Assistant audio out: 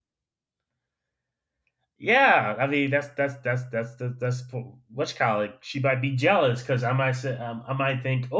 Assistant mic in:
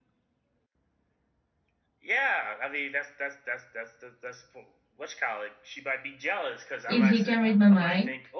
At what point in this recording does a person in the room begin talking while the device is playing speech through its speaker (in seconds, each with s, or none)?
6.9 s